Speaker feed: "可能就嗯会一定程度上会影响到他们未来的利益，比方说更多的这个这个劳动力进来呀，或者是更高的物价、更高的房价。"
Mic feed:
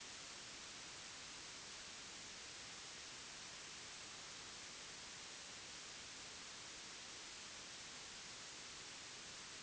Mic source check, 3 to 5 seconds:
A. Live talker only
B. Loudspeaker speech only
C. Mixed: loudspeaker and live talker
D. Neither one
D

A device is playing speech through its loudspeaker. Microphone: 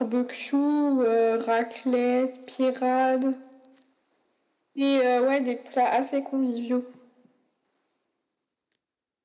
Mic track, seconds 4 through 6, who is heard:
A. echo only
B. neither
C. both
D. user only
A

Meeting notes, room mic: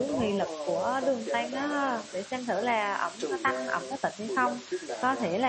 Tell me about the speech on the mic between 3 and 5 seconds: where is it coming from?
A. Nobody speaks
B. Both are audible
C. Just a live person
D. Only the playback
B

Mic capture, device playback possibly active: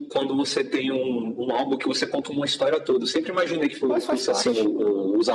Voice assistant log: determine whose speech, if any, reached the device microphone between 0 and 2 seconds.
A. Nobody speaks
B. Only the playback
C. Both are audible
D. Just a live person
B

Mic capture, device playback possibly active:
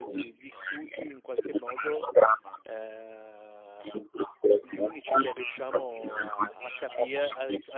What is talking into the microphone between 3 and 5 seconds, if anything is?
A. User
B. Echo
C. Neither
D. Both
D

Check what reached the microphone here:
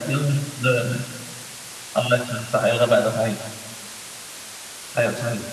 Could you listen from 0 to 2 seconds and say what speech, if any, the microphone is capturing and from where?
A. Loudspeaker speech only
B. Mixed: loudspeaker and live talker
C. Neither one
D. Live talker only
A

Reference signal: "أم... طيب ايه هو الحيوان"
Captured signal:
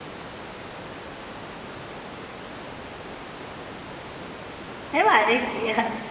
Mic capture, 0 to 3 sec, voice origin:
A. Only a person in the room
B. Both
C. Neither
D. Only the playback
C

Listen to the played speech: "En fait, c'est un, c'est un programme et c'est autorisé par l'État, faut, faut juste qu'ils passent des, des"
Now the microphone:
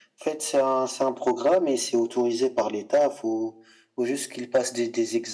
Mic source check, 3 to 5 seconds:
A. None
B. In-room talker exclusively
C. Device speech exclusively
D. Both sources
C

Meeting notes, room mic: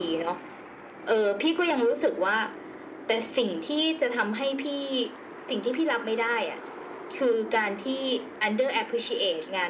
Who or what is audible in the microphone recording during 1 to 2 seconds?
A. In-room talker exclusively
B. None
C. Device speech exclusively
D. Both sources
C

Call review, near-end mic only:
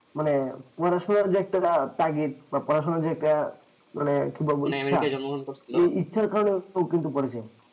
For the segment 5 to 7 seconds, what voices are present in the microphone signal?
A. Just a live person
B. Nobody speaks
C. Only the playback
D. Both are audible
D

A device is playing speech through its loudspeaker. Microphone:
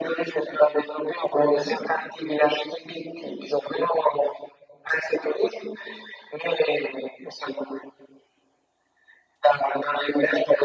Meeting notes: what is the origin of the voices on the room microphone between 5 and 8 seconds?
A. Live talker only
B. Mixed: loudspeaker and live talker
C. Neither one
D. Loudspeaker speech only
D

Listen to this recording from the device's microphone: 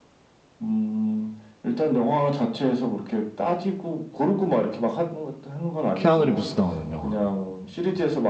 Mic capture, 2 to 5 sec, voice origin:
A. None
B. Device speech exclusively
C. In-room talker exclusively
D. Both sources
B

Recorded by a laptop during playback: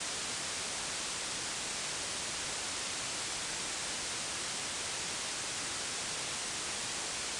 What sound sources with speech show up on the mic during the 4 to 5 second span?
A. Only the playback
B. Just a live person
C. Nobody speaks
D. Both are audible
C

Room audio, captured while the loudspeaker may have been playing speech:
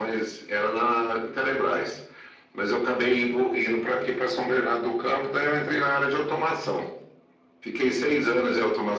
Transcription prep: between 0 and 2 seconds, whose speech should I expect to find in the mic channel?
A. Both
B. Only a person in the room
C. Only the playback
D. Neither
C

